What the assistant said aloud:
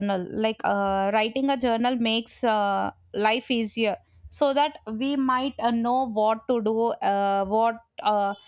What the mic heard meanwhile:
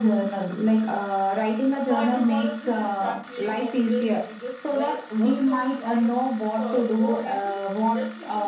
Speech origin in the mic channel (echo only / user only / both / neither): both